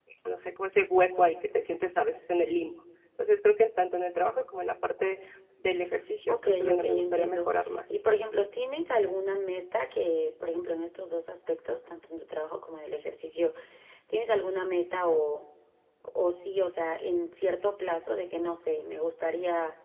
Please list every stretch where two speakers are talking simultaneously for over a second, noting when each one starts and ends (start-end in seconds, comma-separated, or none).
6.3-7.5